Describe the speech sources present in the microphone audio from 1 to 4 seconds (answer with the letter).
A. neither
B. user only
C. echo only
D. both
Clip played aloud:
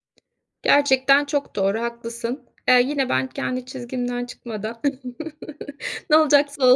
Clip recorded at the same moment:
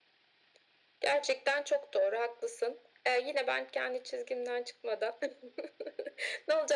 C